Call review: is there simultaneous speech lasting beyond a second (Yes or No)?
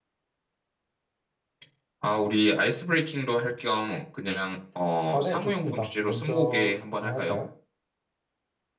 Yes